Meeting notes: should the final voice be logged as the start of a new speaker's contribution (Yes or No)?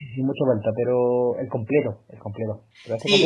Yes